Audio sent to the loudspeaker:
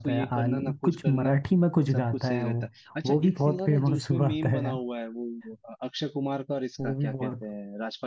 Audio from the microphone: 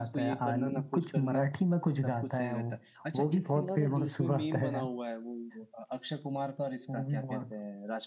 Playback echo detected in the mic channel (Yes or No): Yes